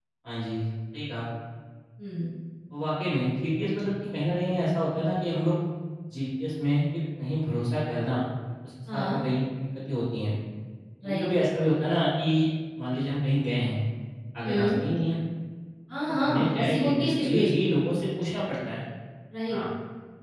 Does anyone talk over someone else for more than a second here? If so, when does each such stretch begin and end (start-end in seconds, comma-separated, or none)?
16.1-17.7